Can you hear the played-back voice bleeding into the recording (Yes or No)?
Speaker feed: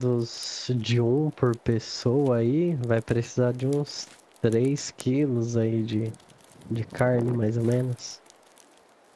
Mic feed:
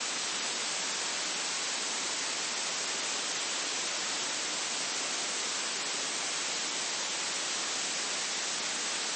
No